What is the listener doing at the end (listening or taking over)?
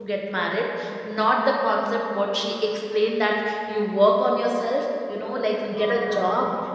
listening